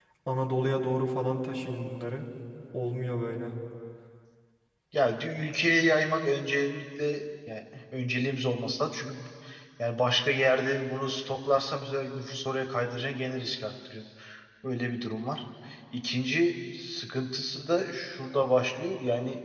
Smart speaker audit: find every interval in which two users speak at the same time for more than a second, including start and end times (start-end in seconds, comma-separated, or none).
none